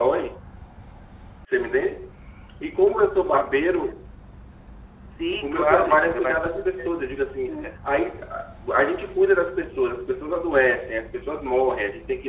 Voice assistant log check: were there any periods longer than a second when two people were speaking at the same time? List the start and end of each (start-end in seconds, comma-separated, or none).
5.4-7.0